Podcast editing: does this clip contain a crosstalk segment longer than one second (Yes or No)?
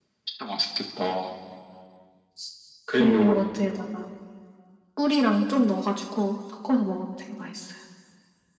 No